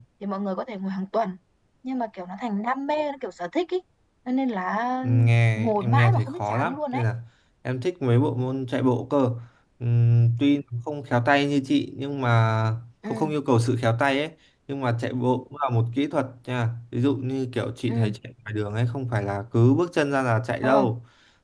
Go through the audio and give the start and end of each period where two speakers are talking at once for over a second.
5.6-7.0

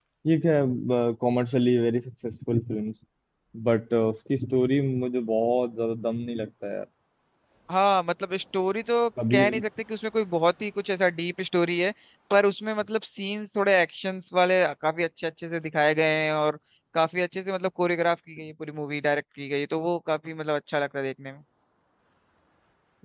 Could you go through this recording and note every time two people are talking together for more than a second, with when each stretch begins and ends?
none

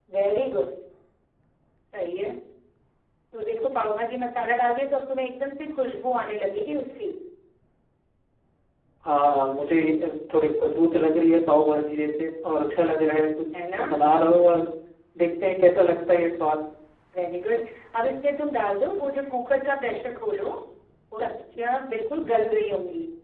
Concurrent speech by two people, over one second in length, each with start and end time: none

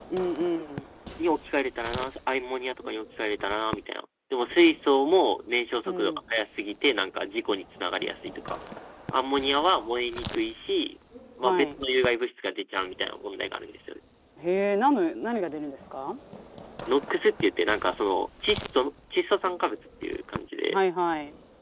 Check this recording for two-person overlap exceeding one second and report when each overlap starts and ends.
none

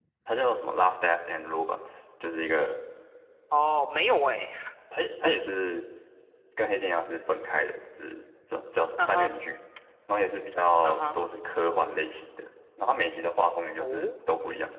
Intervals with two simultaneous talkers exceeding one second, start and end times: none

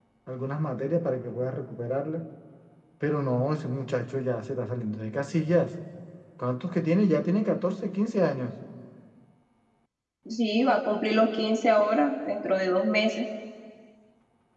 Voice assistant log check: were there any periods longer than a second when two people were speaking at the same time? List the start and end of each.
none

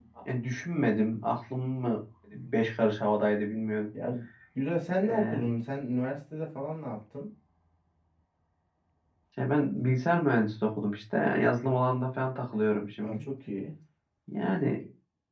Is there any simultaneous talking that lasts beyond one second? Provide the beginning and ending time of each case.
none

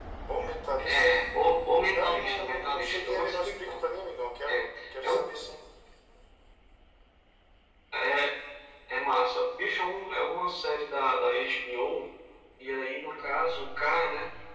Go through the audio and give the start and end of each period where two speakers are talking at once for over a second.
1.9-3.8

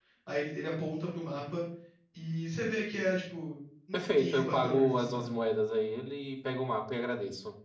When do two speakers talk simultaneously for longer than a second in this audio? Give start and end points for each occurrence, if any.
3.9-5.2

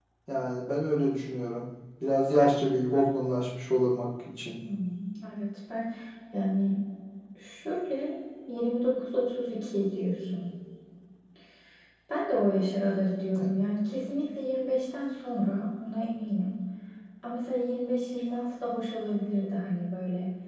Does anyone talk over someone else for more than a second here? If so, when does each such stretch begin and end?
none

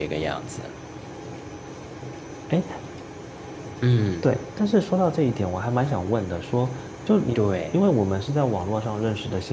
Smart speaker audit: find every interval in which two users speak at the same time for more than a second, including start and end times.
none

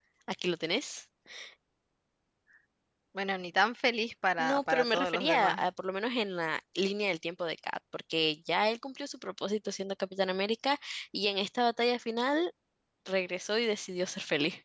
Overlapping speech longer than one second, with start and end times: 4.4-5.7

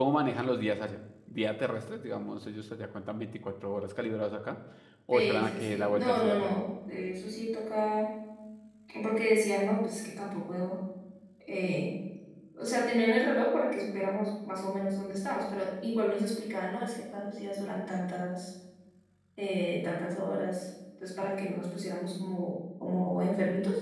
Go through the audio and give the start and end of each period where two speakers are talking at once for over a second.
5.1-6.5

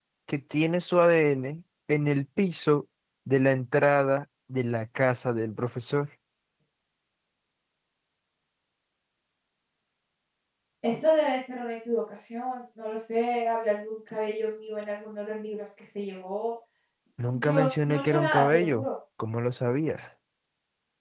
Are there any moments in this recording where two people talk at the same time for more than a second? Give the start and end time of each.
17.3-18.9

